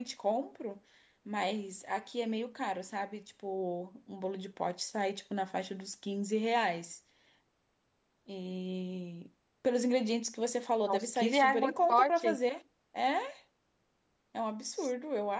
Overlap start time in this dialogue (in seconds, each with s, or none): 10.9 s